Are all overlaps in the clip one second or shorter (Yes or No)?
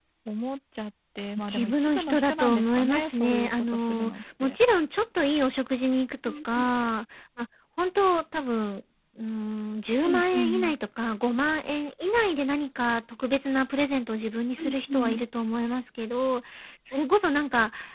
No